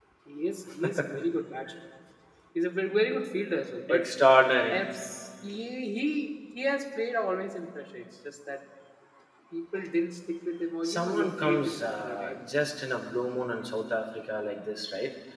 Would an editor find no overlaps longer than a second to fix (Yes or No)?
No